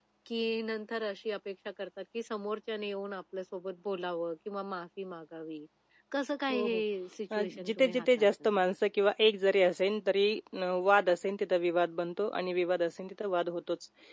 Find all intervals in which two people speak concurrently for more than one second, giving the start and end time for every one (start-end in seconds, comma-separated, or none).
7.3-8.5